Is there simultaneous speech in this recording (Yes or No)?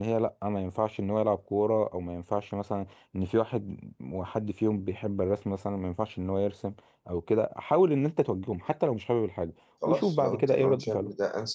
Yes